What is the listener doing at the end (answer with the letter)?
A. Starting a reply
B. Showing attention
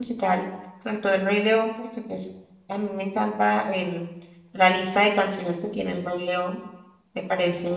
B